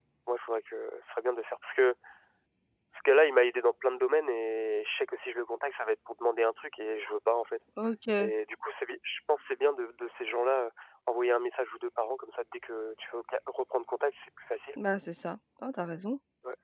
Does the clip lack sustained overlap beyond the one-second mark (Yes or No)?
Yes